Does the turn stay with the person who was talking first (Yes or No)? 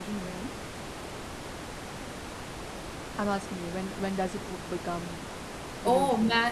No